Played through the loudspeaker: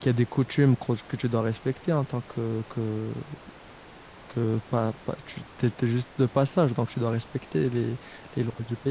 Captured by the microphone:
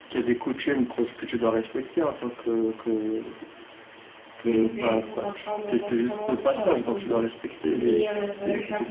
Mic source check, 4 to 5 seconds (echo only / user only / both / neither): both